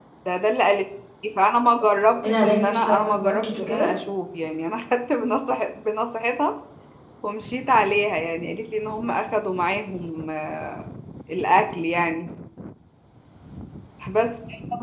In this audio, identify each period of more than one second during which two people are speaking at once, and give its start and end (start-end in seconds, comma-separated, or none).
2.2-3.9